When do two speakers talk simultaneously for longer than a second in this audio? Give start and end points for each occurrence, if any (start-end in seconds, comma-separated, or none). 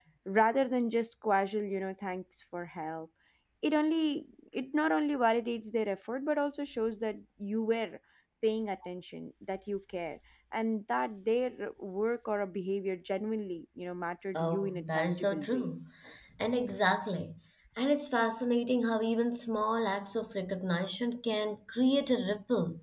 14.3-15.7